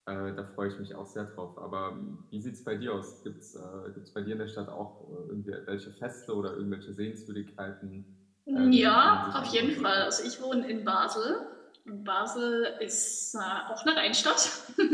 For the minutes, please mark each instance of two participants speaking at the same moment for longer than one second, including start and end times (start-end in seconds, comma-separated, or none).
8.5-10.1